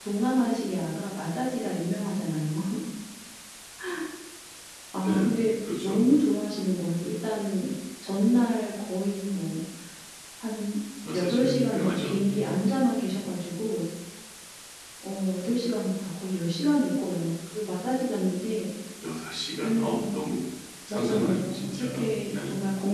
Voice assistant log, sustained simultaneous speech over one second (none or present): present